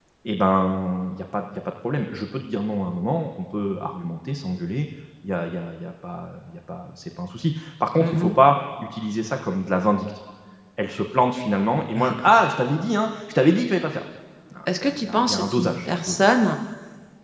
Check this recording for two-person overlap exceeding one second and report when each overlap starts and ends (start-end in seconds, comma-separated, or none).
14.8-16.4